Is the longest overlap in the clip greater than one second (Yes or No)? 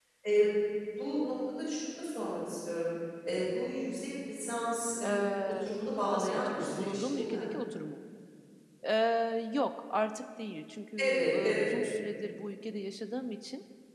Yes